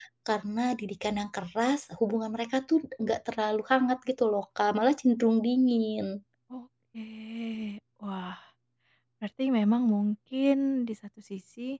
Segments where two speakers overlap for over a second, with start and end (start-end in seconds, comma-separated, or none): none